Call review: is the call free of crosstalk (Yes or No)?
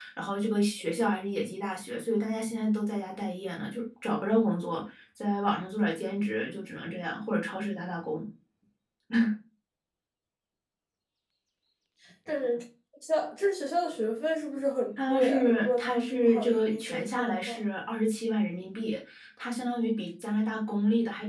No